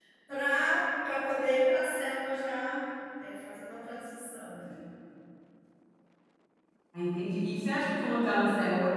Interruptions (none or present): none